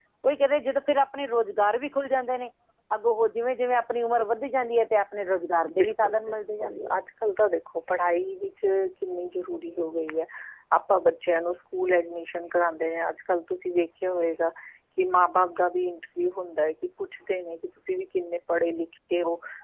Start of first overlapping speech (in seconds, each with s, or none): 5.7 s